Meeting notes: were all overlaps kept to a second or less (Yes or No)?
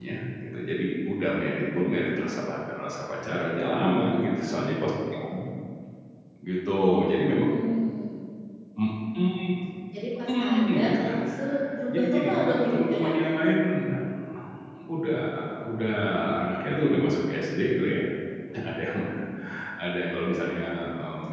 No